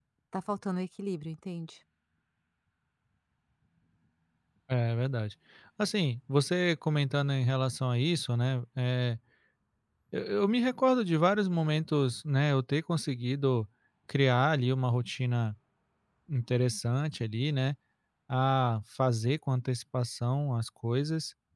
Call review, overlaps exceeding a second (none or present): none